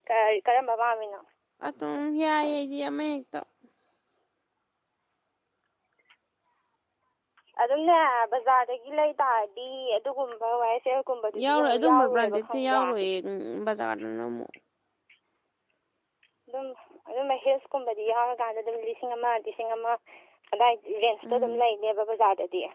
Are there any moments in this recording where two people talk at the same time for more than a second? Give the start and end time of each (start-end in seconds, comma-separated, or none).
11.4-12.8